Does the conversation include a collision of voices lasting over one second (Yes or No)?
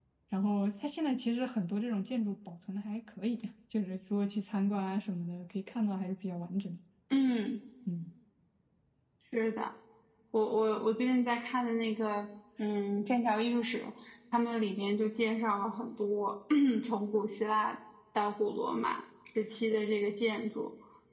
No